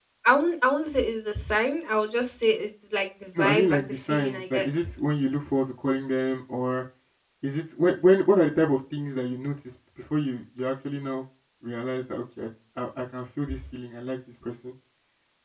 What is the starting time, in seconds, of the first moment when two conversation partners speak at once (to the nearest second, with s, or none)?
3 s